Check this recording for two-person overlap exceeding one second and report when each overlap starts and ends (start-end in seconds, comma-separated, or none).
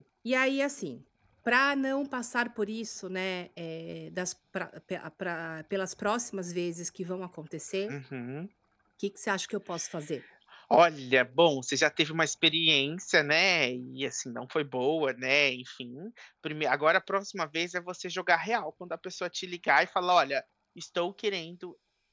none